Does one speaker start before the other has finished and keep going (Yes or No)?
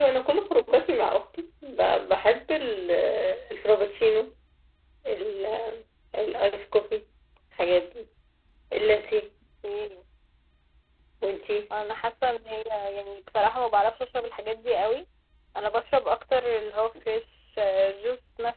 No